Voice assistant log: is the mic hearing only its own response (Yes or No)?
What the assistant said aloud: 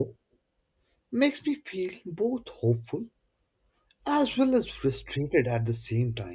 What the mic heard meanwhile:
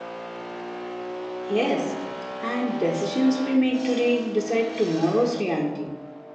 No